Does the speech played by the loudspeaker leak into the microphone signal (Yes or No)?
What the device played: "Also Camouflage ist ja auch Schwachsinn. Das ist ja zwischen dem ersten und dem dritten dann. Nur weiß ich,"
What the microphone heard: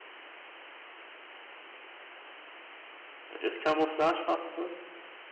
No